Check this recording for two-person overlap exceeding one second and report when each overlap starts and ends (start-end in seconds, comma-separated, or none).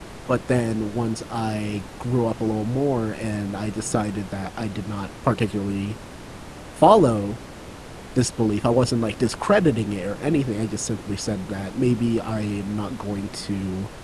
none